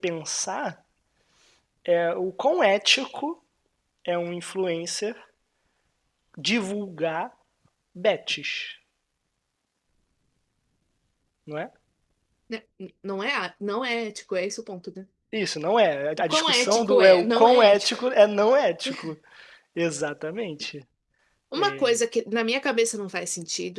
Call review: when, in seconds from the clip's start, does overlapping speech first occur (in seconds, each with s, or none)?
16.2 s